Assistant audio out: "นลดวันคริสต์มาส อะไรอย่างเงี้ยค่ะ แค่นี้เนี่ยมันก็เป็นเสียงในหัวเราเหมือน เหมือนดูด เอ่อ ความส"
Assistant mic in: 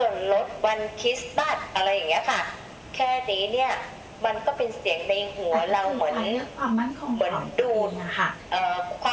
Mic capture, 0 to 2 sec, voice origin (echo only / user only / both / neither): echo only